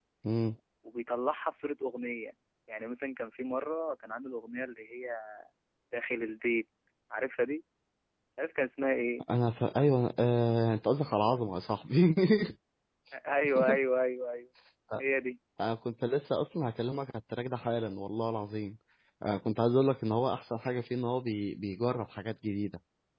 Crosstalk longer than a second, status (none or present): none